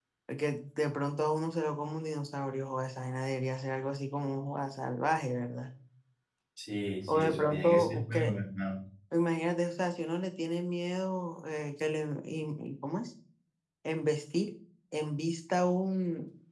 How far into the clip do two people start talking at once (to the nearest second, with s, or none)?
7 s